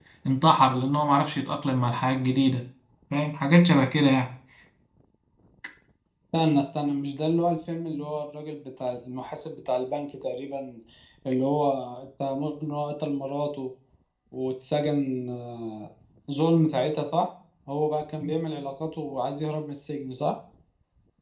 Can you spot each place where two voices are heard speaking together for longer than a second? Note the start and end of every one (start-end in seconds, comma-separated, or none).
none